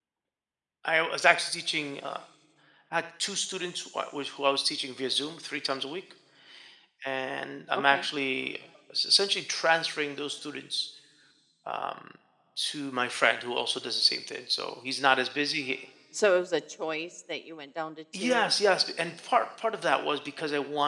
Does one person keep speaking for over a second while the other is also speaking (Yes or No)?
No